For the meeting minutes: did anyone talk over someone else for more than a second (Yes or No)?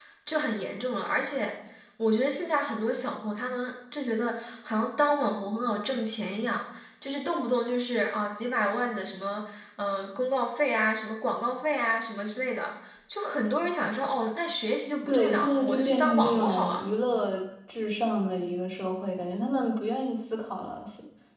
Yes